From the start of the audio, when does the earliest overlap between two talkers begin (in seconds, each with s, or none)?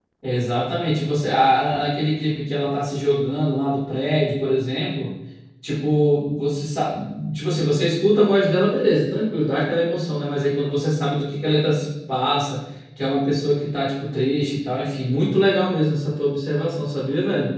none